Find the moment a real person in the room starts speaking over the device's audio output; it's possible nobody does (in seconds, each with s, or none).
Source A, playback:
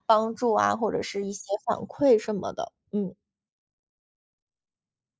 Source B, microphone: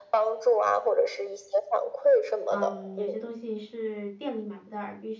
2.5 s